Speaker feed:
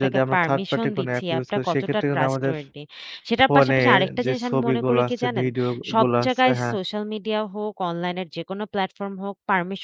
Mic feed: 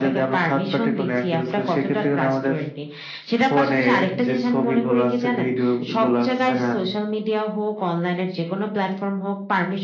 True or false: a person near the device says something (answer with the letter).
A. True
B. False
B